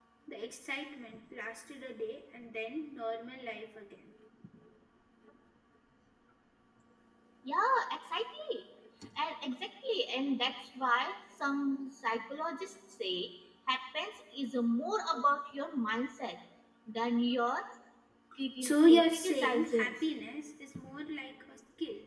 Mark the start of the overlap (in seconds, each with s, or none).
18.6 s